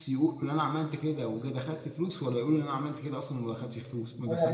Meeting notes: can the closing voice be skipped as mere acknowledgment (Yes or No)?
No